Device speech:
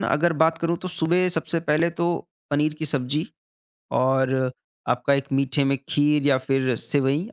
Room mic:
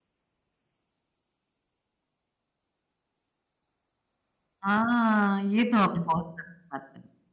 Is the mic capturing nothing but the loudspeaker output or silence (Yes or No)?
No